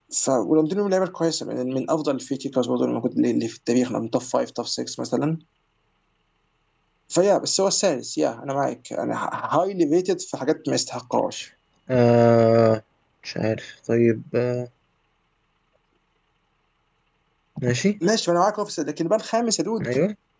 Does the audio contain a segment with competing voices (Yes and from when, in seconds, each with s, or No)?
No